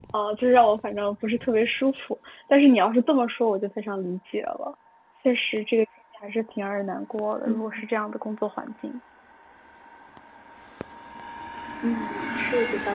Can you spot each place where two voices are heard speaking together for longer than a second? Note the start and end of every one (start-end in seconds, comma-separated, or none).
none